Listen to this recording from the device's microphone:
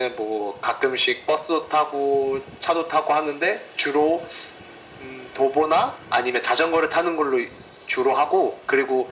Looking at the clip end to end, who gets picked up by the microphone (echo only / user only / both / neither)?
echo only